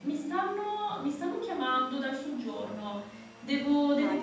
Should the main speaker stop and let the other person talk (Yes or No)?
Yes